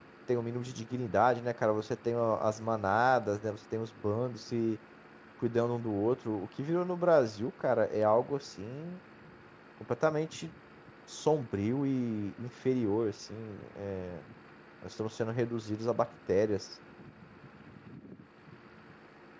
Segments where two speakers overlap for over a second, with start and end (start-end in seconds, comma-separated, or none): none